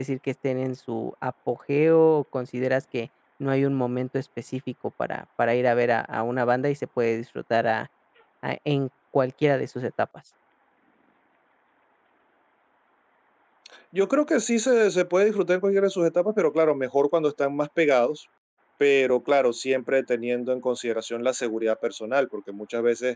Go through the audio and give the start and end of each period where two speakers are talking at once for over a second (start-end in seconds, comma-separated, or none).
none